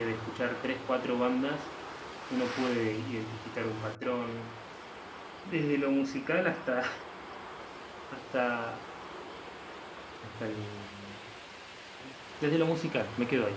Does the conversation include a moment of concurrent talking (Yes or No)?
No